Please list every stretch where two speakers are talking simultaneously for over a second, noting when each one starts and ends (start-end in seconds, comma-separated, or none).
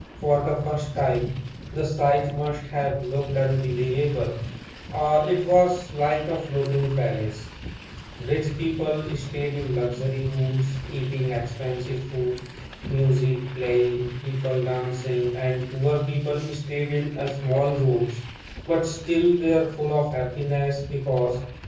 none